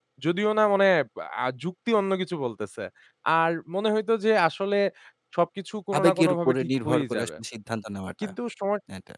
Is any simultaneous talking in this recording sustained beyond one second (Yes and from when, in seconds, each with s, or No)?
Yes, from 6.0 s